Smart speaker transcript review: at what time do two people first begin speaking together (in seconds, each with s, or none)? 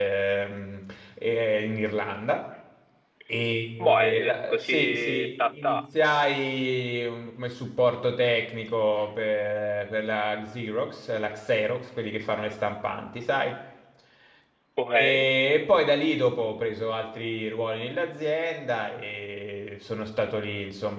3.8 s